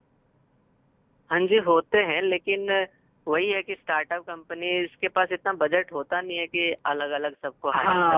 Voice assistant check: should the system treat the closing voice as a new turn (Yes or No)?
Yes